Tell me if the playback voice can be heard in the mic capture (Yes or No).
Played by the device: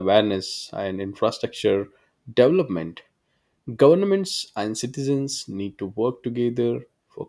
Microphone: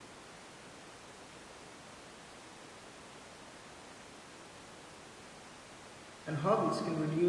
No